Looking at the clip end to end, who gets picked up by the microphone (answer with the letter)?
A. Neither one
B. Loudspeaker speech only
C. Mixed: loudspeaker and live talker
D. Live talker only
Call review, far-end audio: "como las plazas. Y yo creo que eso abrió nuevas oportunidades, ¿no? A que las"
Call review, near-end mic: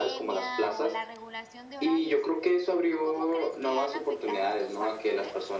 C